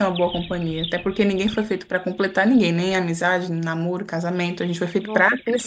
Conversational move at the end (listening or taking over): taking over